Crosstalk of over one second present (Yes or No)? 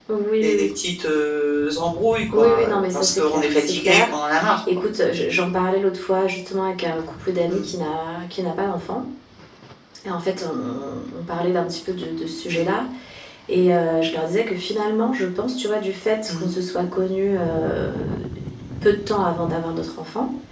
Yes